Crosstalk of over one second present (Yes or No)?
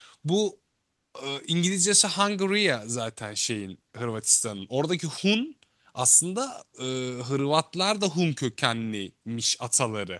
No